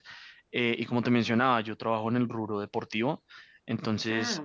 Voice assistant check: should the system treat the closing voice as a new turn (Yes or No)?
No